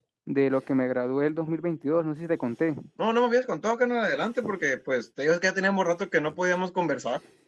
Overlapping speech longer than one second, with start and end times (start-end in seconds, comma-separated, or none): none